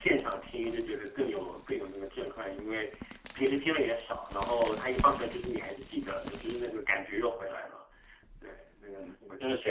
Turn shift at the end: Yes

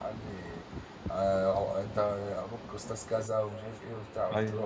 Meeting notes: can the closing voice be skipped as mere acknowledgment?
Yes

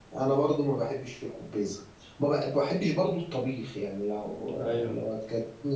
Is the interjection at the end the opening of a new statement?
No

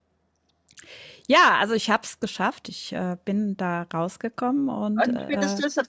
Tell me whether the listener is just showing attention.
No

